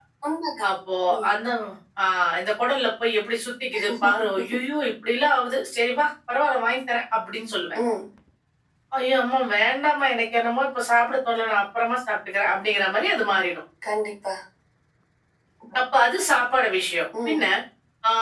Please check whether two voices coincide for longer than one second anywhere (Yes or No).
No